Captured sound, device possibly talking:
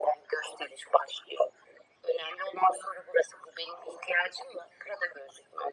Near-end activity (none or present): none